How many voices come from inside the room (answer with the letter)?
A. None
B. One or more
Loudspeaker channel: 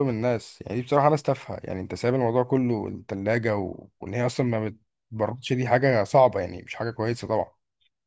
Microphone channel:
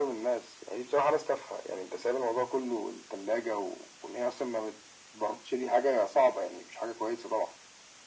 A